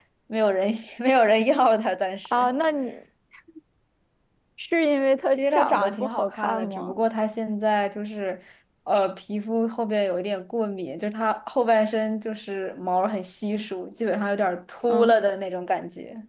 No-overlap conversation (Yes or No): No